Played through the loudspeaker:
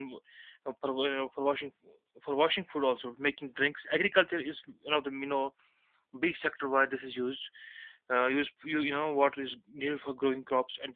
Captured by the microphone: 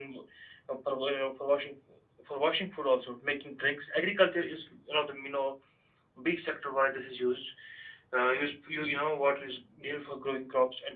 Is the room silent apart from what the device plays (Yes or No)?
Yes